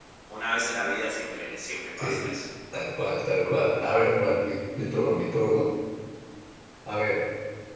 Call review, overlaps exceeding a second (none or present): none